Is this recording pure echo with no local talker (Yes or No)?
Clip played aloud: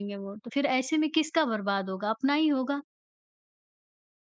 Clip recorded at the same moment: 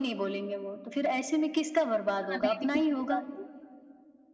No